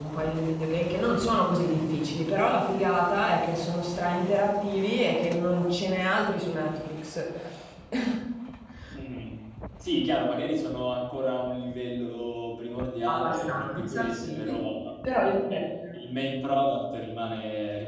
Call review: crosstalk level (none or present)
present